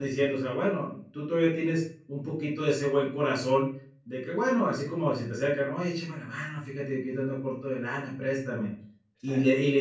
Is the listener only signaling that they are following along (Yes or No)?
Yes